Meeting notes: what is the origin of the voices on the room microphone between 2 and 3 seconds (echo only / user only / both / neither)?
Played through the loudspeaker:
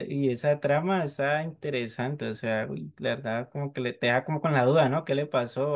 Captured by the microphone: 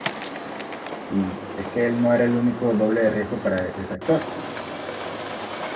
user only